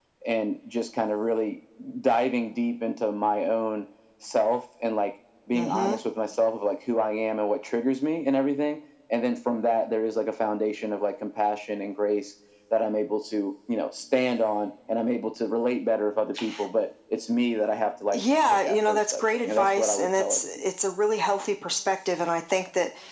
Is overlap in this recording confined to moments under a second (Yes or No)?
No